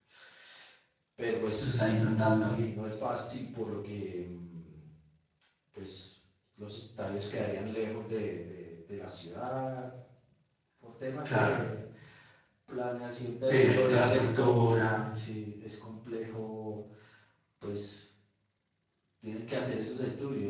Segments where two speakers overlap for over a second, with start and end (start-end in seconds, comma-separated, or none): 13.5-15.0